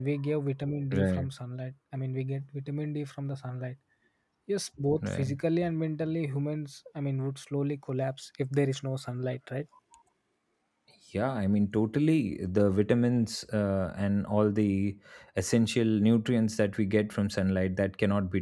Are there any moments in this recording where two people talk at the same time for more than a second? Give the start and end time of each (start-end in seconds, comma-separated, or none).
none